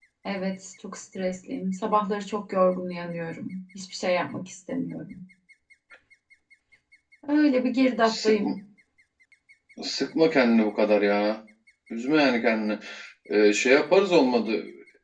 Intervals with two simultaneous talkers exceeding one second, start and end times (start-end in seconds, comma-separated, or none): none